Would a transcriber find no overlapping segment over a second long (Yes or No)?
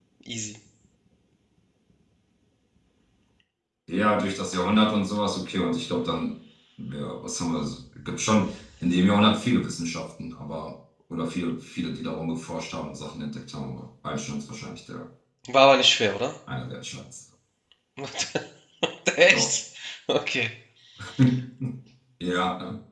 Yes